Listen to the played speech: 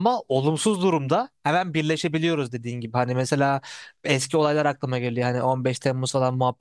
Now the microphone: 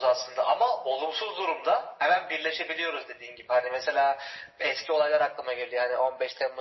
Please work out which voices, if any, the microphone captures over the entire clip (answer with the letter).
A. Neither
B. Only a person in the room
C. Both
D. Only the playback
D